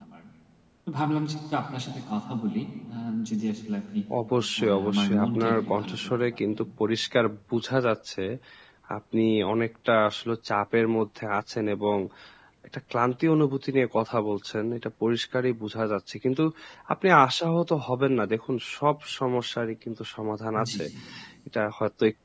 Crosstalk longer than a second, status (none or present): present